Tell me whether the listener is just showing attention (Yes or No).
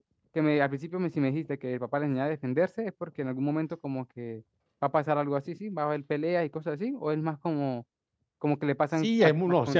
No